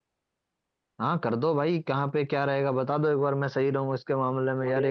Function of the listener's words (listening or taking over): taking over